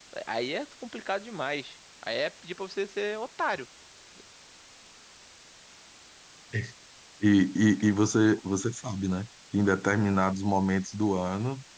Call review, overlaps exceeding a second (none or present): none